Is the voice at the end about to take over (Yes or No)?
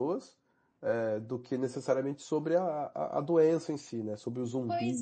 Yes